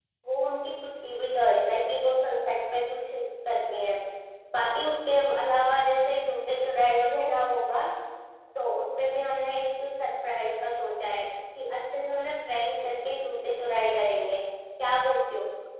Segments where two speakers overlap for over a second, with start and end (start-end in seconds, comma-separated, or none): none